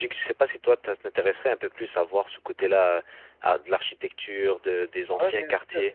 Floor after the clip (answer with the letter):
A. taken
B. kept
A